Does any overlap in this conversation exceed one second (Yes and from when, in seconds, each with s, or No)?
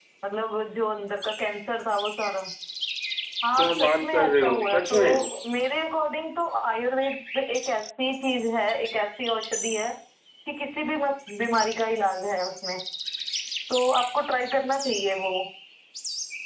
Yes, from 3.6 s